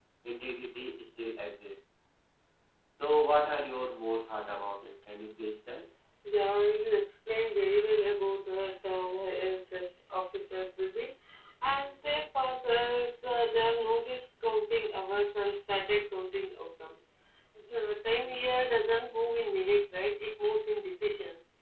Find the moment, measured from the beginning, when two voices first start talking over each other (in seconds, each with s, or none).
none